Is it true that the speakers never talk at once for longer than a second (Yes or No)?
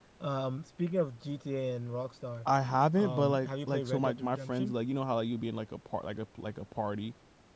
No